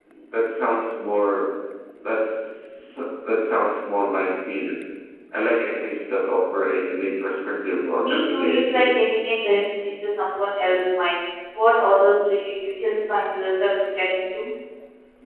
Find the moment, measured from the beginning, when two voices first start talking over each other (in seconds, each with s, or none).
8.0 s